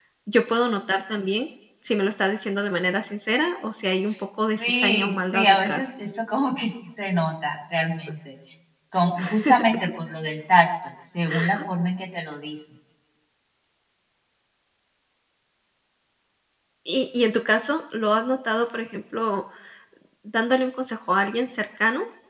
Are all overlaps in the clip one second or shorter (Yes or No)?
No